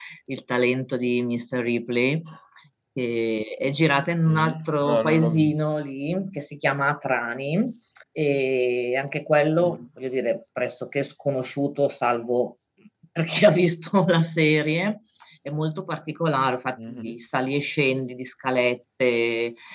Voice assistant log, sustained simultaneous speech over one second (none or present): present